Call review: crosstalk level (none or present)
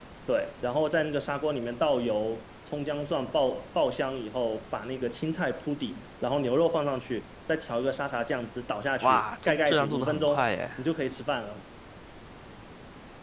present